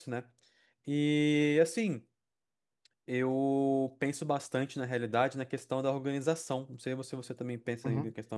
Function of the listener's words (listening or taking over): taking over